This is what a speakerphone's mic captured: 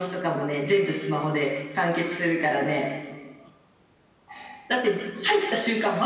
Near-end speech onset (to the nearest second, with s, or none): none